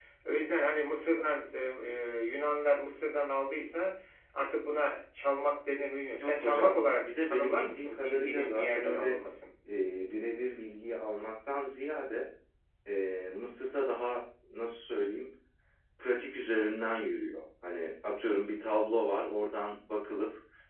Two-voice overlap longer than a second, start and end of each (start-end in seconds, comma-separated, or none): 6.2-9.1